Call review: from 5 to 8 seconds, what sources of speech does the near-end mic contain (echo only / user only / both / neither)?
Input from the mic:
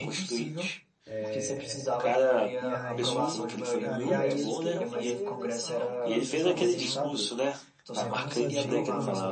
both